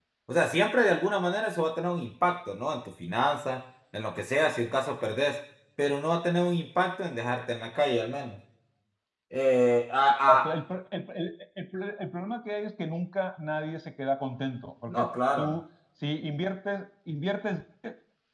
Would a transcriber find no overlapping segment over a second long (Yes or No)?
Yes